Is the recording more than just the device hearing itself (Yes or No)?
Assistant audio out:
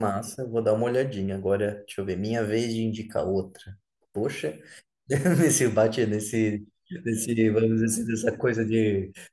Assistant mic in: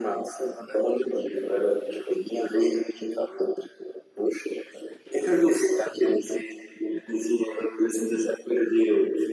No